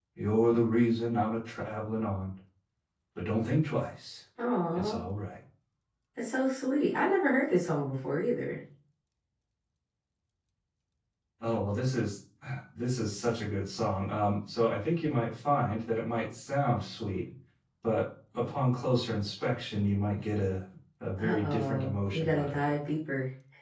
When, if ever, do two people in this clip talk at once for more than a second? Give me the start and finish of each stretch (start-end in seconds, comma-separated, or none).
21.2-22.8